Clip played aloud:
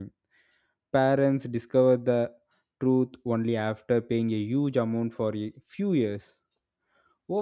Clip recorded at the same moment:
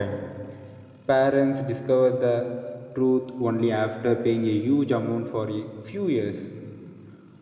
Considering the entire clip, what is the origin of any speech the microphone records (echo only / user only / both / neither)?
echo only